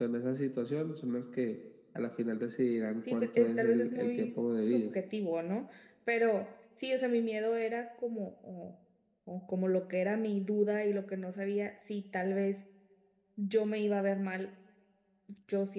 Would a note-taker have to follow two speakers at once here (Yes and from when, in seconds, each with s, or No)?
Yes, from 3.1 s